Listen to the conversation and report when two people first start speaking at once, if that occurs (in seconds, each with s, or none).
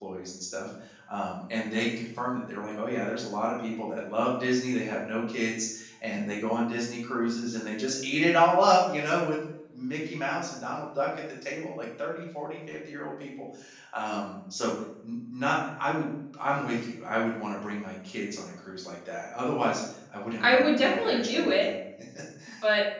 20.4 s